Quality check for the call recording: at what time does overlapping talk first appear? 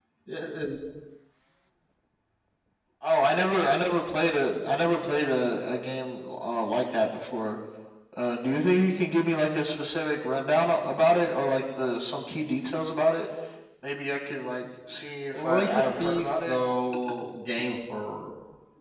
15 s

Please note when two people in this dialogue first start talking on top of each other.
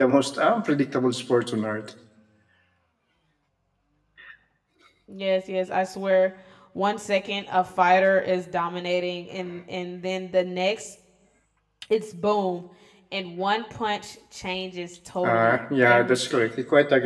15 s

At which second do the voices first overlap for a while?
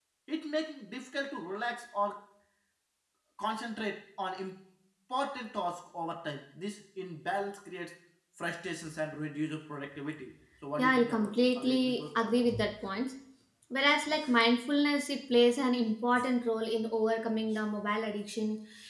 11 s

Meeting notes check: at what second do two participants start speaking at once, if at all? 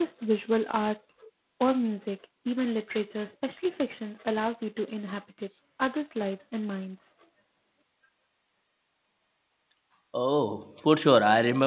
none

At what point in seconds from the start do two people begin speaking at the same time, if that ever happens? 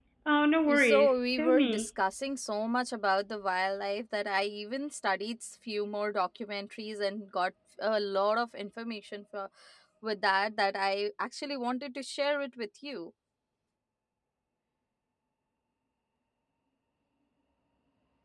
1 s

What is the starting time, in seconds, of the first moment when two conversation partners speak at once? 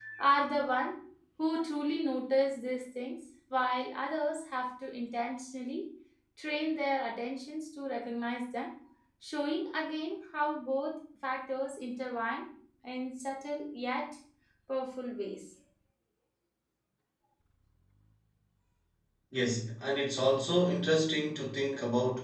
none

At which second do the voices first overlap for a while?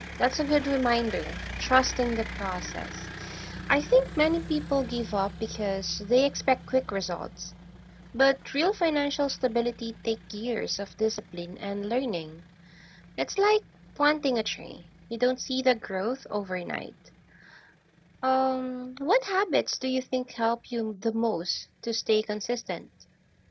none

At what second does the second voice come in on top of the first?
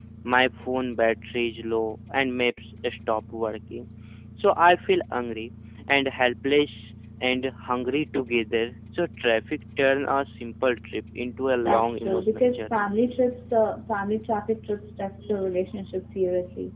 12 s

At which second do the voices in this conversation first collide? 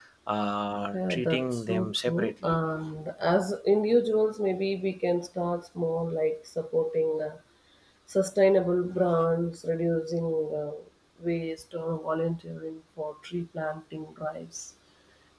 1 s

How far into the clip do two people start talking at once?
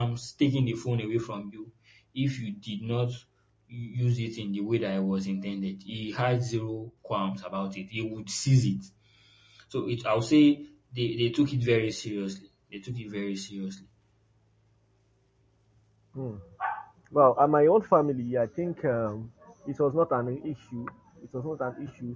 none

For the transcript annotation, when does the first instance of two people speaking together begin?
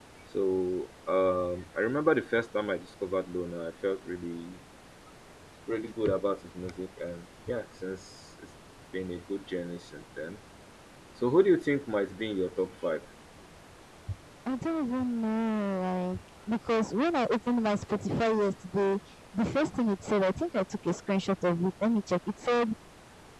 none

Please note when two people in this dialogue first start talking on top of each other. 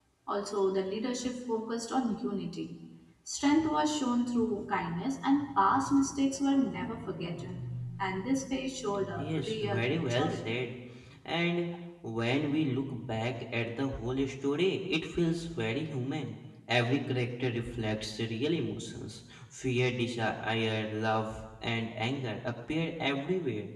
9 s

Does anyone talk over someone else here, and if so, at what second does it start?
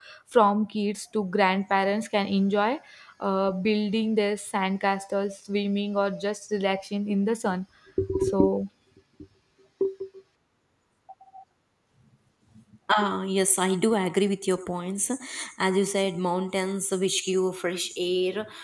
none

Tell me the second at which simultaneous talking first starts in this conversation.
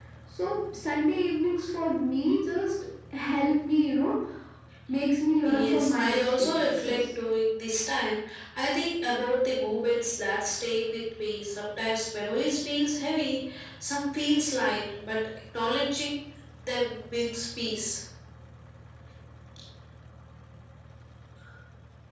5 s

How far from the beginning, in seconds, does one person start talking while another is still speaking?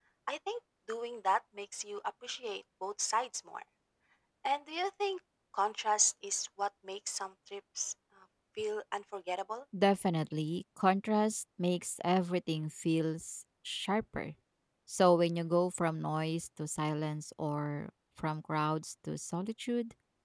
none

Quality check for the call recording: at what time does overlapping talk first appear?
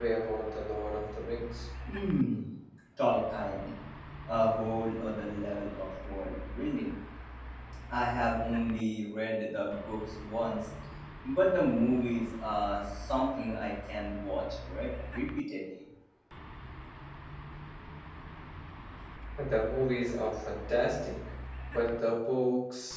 none

